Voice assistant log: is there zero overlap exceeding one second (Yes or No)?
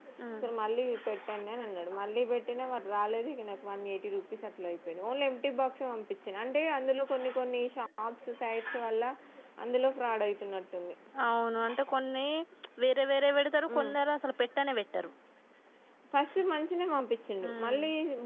Yes